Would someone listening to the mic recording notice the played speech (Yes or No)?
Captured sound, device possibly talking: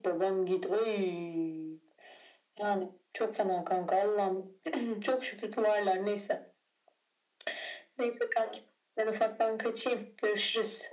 Yes